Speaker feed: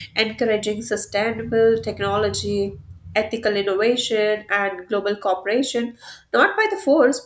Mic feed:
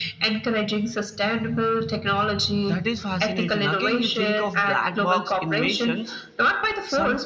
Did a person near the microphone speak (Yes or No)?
Yes